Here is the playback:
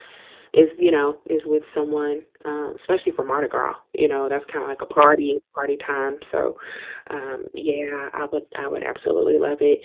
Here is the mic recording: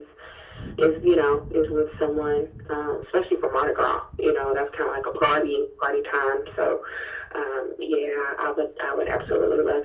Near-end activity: none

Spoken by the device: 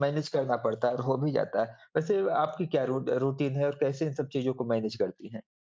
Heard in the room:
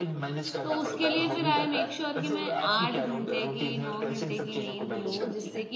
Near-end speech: present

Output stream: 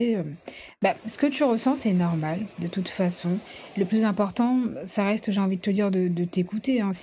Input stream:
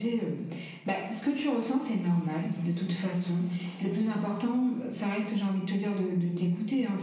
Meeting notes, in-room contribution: none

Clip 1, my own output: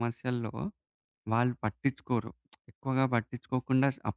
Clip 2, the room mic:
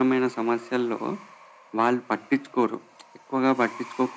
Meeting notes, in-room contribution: none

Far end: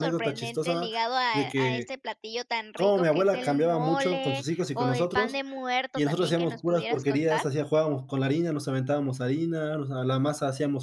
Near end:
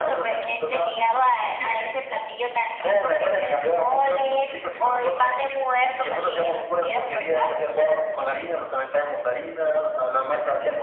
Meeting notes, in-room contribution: none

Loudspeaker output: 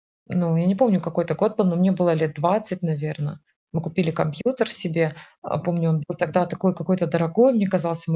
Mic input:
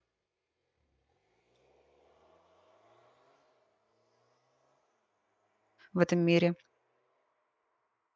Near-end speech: present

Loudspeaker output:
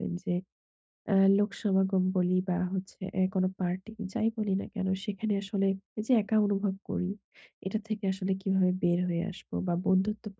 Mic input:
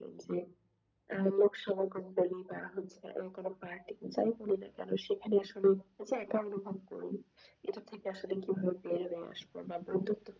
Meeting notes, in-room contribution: none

